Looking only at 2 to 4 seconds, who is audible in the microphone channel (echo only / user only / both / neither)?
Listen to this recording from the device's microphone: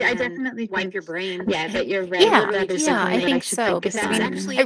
both